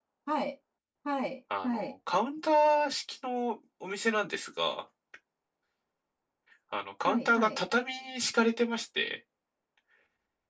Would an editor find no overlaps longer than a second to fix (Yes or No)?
Yes